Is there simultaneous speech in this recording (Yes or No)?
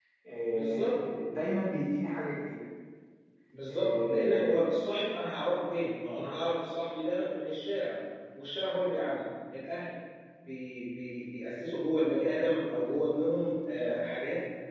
Yes